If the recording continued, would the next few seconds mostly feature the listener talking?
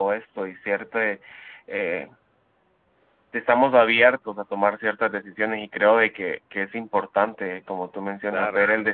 No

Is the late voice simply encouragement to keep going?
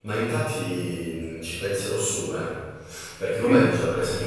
Yes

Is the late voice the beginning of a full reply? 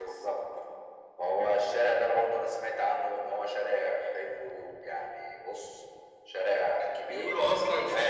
Yes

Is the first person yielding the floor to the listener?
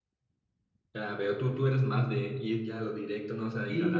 Yes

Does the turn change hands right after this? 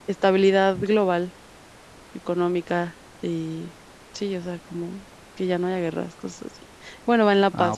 No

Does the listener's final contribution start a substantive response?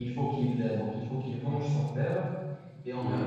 No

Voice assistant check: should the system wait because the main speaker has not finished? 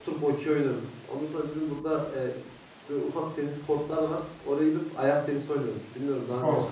No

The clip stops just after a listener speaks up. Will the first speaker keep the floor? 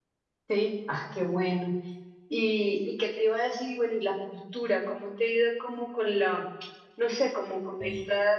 Yes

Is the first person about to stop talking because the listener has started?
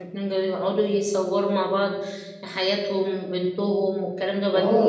Yes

